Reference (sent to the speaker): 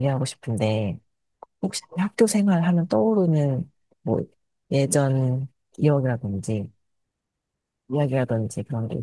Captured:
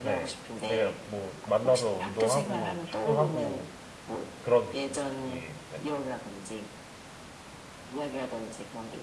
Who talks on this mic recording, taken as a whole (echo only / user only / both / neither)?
both